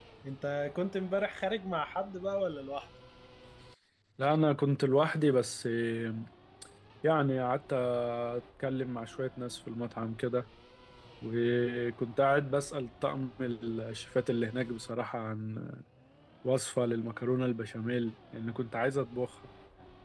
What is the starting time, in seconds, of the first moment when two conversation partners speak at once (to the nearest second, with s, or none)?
none